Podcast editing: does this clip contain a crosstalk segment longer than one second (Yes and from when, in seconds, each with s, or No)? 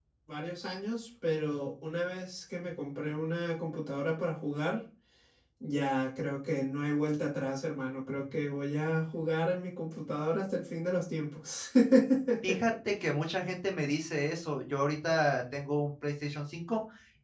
No